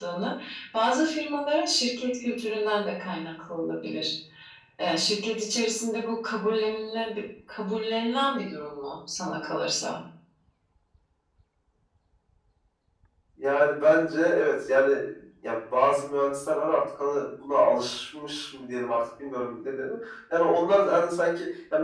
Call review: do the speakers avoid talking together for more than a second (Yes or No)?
Yes